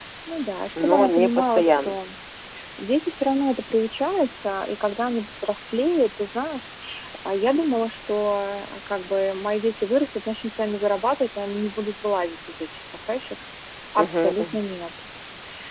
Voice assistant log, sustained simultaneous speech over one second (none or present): present